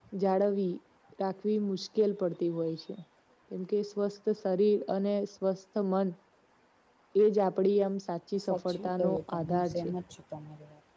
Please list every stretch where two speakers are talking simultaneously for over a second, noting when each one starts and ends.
8.3-9.9

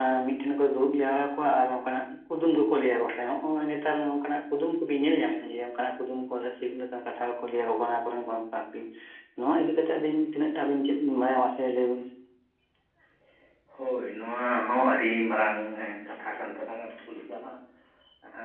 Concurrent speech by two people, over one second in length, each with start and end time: none

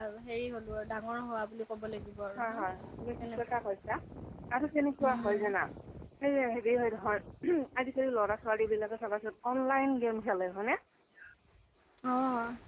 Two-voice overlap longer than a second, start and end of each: none

